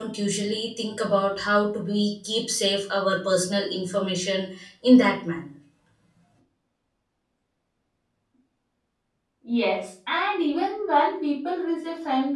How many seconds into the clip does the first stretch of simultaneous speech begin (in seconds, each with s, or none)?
none